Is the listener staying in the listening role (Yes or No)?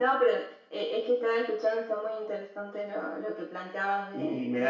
No